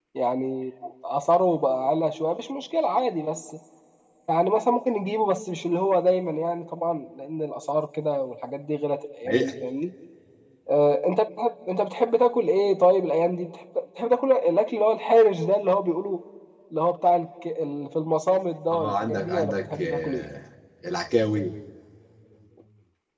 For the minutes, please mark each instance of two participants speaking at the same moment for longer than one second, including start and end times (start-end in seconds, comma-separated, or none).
18.7-20.2